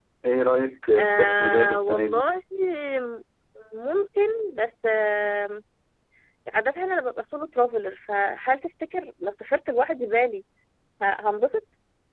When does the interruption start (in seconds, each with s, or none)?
1.0 s